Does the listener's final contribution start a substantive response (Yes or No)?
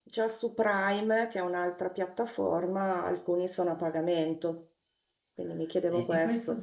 Yes